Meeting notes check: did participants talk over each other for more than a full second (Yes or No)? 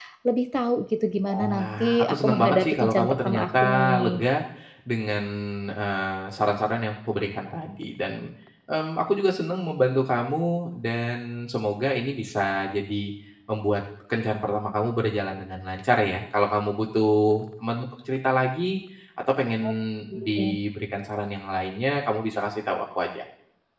Yes